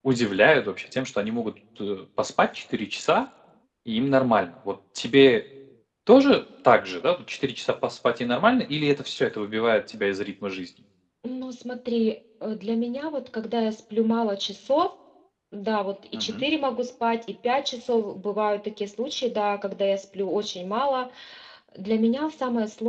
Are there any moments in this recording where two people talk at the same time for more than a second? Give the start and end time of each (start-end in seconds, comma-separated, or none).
none